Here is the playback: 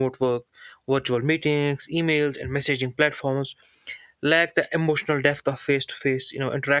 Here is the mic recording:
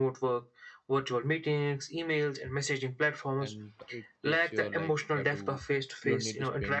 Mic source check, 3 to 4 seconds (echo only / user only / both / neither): both